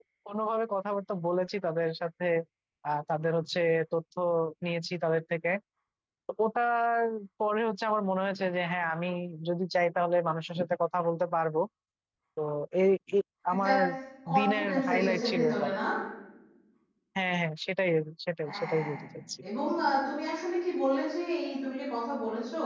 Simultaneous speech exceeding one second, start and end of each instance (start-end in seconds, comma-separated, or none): 14.4-15.7